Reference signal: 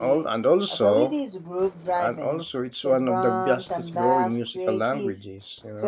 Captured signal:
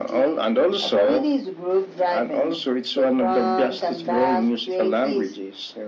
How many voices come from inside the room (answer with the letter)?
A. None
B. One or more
A